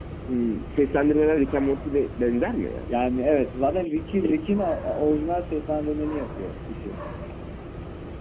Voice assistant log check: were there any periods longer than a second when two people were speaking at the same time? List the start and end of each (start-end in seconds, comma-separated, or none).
none